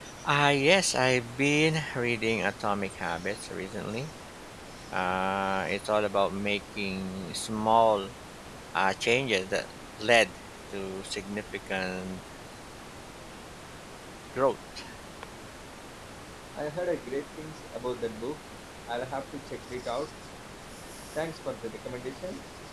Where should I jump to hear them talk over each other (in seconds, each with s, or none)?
none